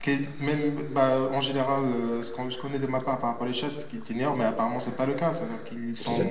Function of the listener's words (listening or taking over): taking over